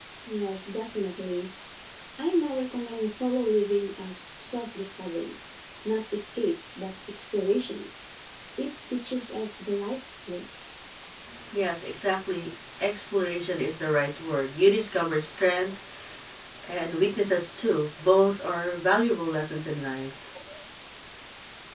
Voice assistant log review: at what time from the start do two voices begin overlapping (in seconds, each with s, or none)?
none